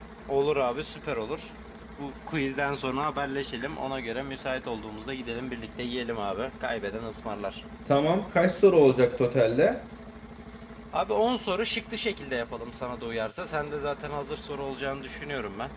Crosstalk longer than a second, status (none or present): none